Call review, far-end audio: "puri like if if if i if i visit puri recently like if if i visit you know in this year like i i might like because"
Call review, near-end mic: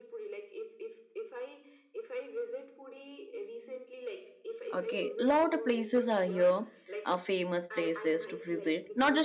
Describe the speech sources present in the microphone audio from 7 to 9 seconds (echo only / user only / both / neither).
both